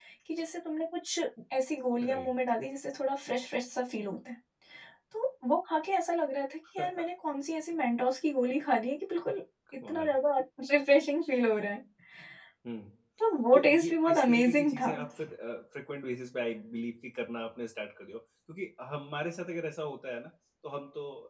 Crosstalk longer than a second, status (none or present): present